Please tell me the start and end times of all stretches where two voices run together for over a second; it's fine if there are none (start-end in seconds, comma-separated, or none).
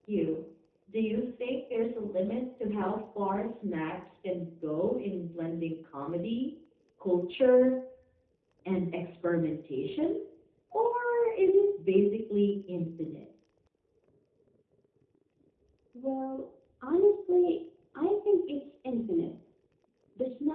none